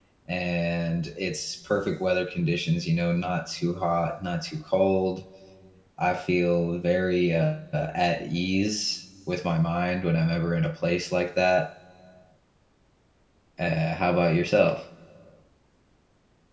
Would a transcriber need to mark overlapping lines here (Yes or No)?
No